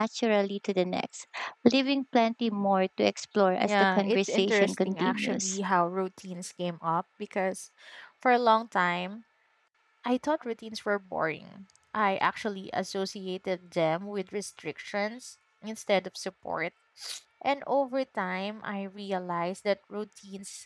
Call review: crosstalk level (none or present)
present